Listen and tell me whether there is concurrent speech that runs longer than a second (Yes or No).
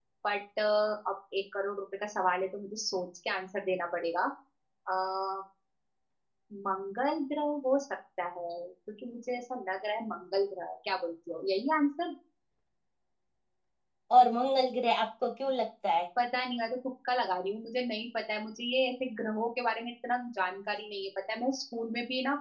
No